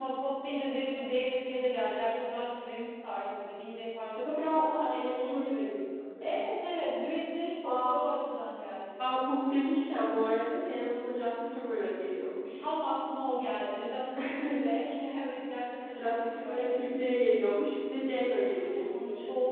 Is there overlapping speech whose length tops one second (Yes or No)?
Yes